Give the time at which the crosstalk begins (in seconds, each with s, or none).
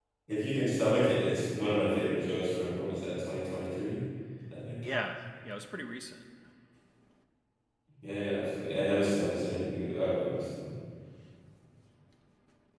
none